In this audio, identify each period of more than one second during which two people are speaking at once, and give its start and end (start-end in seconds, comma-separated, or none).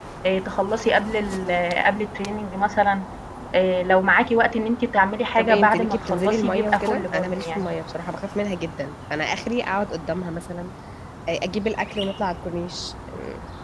5.4-7.7